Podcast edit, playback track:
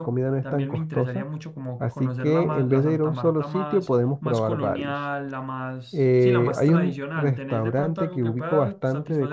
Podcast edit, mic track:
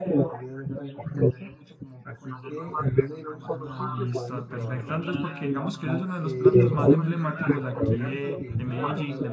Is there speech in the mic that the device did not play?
Yes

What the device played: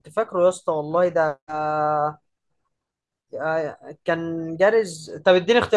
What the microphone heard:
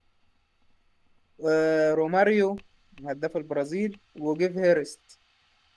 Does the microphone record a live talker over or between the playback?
Yes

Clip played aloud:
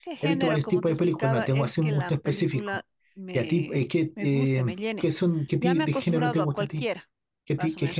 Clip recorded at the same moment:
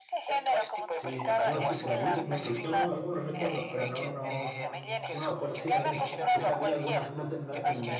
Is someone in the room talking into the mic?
Yes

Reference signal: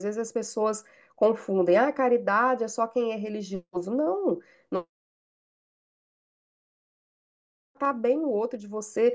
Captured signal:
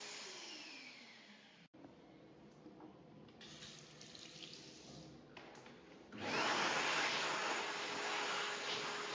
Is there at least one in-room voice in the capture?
No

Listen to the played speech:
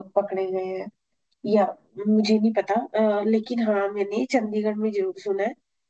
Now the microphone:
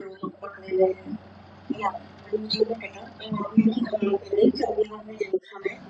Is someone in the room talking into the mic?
No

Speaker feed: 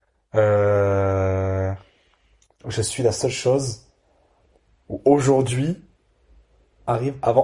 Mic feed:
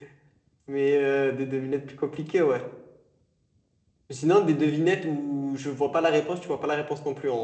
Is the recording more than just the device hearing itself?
Yes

